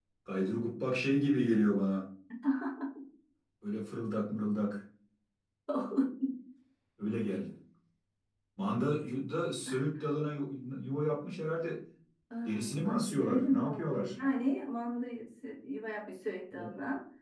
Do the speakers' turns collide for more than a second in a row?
Yes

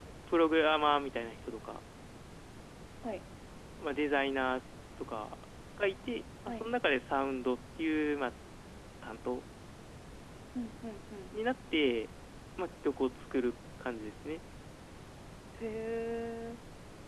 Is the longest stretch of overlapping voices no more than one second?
Yes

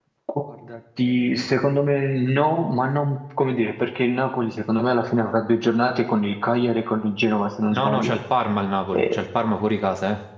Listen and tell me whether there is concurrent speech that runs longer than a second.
No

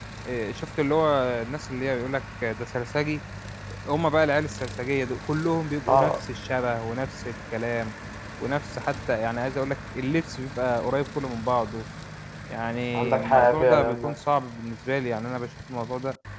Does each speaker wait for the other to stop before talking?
No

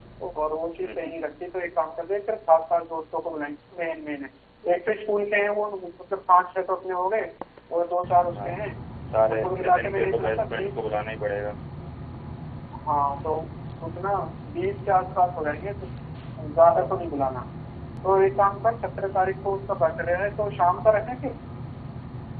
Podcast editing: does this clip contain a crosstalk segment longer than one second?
Yes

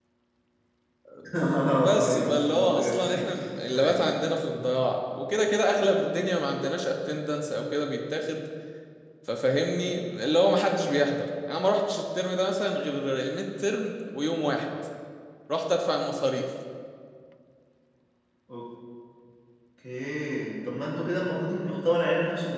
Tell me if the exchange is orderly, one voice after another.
No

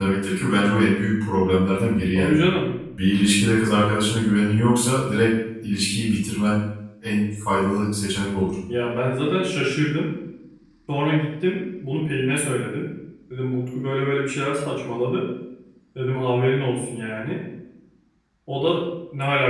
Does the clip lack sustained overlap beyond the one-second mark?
Yes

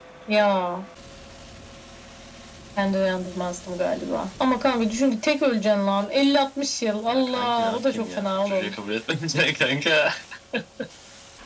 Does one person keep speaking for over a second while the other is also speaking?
Yes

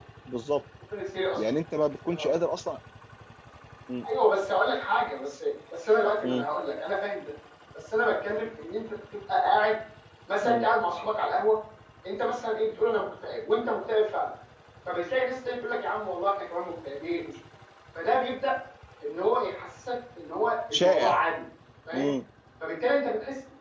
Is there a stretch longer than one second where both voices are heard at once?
No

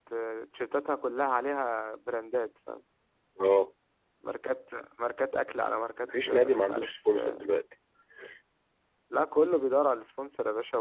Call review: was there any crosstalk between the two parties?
Yes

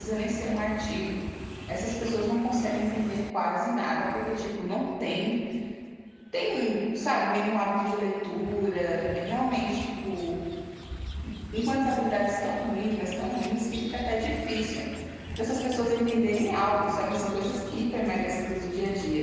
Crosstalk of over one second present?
No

